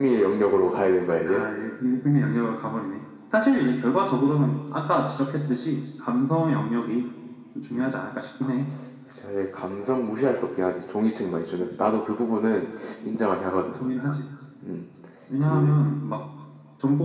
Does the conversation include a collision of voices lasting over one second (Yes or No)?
No